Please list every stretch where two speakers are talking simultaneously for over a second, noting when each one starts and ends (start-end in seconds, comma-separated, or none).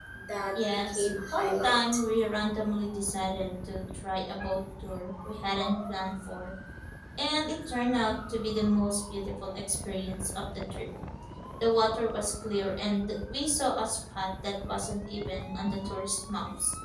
0.7-2.0